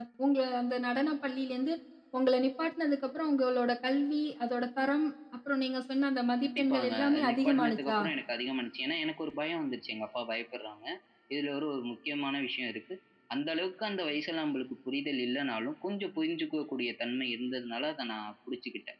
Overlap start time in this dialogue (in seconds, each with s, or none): 6.4 s